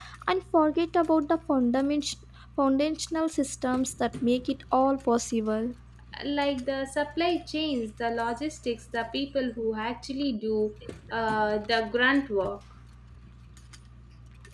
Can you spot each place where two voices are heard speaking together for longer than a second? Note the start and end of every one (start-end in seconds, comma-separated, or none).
none